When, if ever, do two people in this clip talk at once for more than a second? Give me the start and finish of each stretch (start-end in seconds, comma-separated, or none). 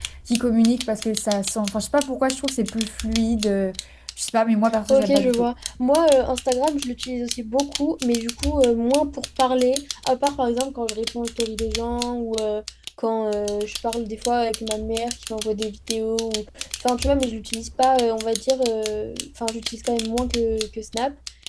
none